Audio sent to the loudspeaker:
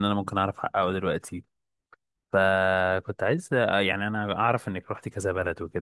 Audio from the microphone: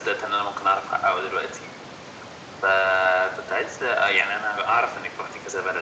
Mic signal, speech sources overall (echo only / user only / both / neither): echo only